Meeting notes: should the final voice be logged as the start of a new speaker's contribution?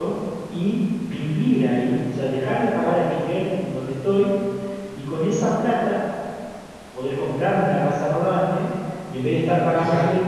No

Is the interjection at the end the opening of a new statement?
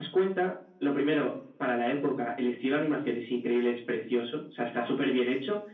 No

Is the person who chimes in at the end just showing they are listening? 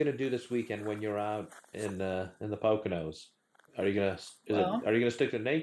Yes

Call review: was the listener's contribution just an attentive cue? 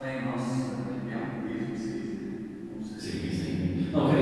No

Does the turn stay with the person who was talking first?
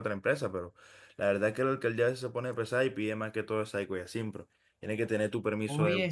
No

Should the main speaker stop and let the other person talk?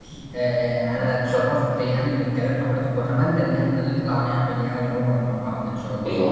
Yes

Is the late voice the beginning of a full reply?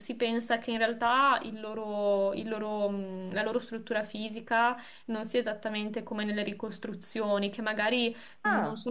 No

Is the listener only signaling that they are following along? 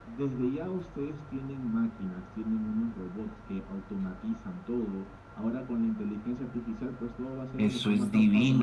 No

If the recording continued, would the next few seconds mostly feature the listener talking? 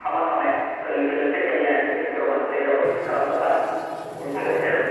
No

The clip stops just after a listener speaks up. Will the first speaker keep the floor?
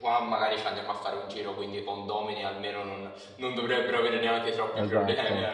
No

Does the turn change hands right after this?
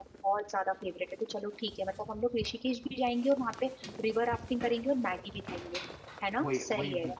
Yes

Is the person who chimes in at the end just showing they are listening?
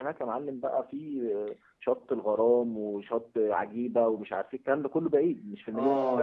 No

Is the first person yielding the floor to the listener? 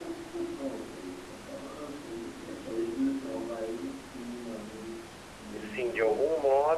Yes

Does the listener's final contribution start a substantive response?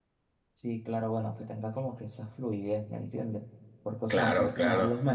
No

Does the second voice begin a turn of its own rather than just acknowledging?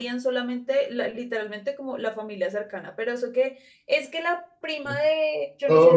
Yes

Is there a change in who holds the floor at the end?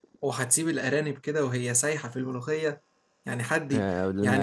Yes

